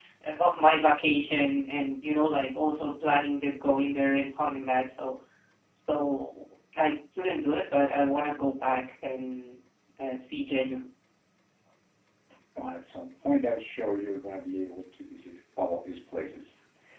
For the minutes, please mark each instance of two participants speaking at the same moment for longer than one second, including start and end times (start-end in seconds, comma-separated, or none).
none